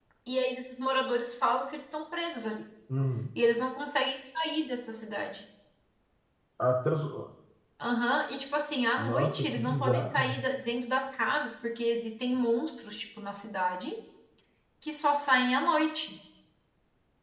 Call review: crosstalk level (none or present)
present